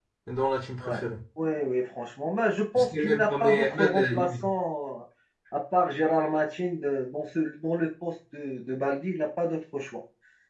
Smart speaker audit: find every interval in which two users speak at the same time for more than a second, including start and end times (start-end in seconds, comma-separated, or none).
2.8-4.3